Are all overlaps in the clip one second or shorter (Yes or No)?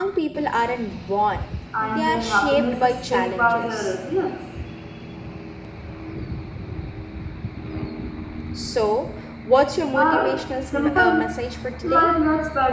No